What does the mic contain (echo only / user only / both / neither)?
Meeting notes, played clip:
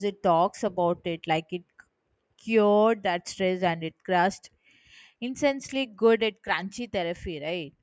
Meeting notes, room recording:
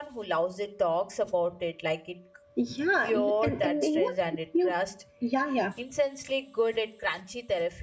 both